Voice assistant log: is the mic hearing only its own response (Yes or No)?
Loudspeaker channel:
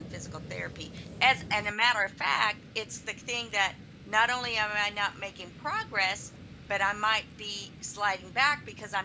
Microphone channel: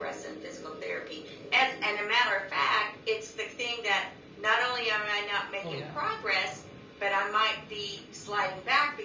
No